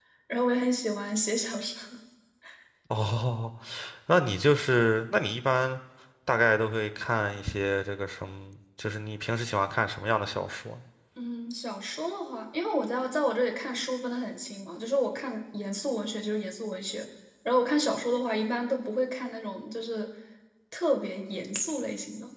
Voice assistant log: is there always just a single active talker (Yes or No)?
Yes